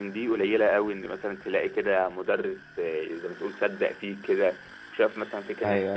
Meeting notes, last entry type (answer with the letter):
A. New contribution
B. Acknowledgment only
B